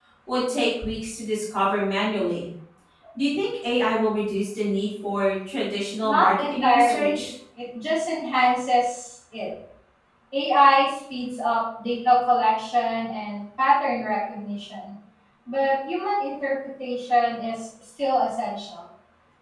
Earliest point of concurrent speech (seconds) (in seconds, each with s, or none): 6.0 s